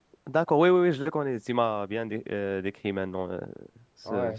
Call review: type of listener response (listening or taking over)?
taking over